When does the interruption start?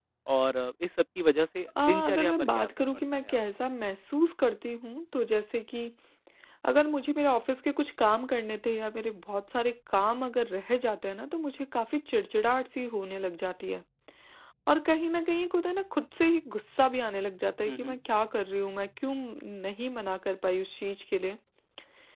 1.9 s

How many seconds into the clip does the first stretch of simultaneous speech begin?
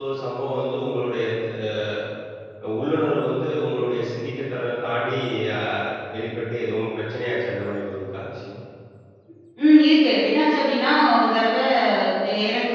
none

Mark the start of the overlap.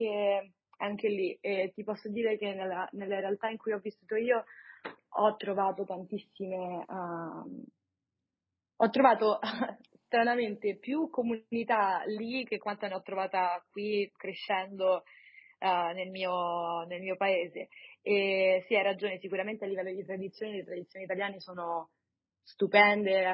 none

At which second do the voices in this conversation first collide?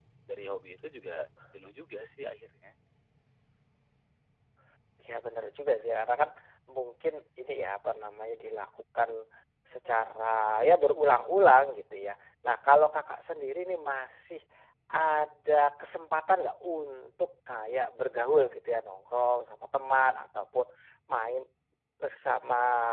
none

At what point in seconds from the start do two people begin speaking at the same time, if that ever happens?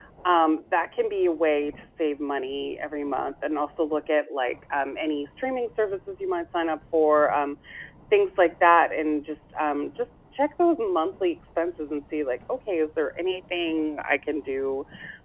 none

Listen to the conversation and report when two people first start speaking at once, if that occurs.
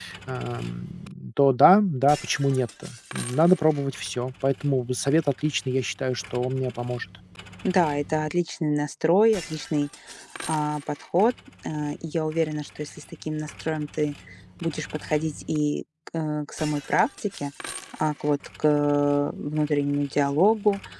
none

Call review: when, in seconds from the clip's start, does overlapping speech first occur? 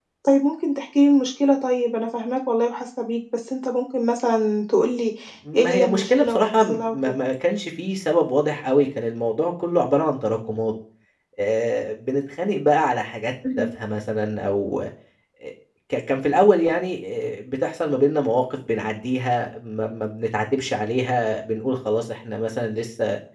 5.6 s

